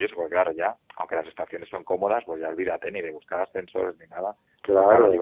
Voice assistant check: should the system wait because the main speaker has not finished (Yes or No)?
Yes